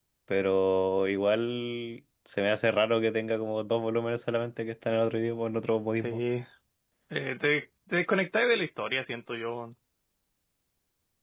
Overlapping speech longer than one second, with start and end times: none

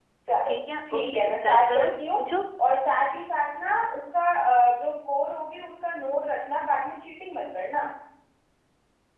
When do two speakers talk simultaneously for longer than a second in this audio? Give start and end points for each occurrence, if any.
0.9-2.2

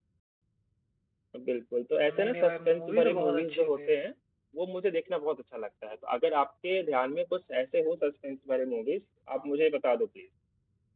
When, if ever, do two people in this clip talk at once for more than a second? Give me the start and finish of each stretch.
2.2-3.9

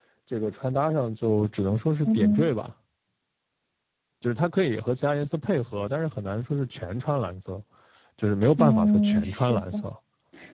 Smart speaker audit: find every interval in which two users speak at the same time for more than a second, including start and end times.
8.6-9.9

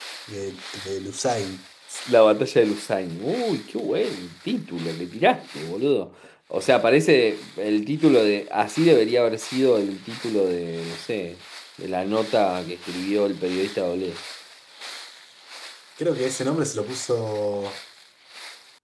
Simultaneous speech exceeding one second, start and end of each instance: none

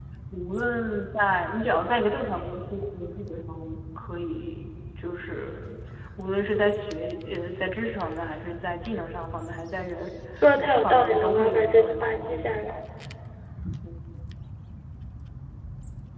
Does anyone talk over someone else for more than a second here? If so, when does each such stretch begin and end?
10.6-12.7

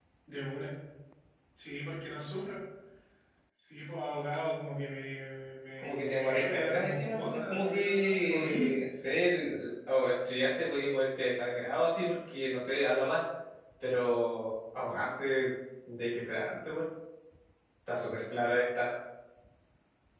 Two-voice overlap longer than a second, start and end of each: 5.8-8.8

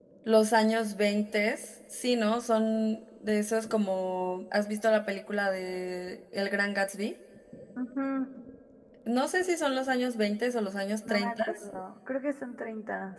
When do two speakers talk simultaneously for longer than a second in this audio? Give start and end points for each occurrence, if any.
none

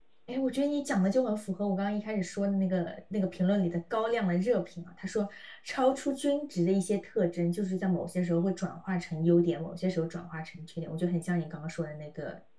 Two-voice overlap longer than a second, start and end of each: none

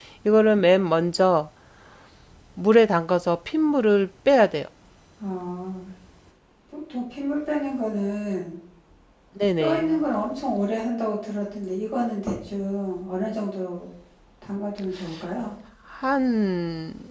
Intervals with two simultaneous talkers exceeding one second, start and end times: none

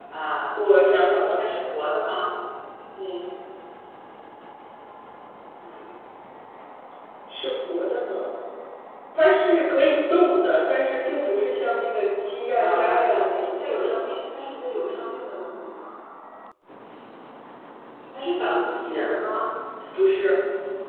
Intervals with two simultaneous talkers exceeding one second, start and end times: 12.6-14.0

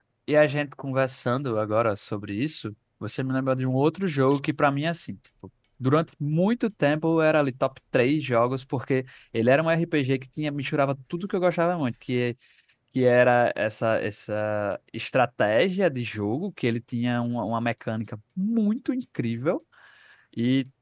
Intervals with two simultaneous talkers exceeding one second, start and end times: none

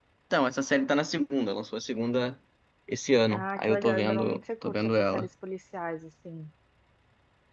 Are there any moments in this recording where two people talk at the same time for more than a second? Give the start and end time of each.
3.3-5.3

